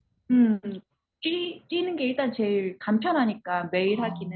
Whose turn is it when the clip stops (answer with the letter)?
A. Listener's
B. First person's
A